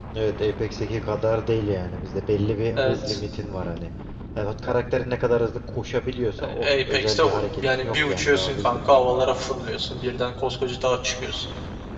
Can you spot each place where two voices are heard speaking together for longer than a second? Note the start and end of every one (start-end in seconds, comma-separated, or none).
6.6-9.3